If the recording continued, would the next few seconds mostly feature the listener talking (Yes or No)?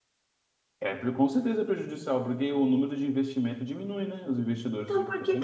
Yes